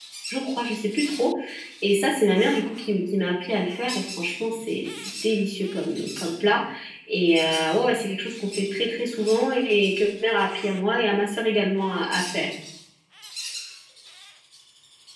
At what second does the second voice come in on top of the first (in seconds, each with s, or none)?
none